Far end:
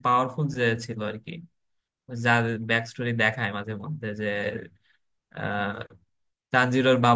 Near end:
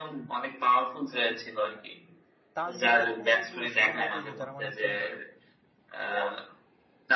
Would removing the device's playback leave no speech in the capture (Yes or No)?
No